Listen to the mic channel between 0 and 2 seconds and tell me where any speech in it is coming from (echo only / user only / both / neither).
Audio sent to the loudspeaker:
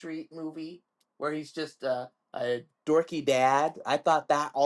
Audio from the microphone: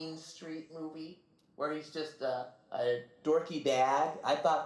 echo only